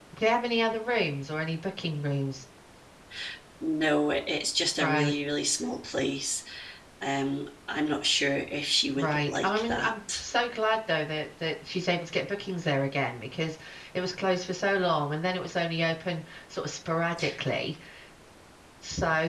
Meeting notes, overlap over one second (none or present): present